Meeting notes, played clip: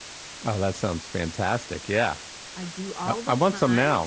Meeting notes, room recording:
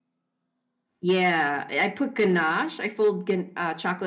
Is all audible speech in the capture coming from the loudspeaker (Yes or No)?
No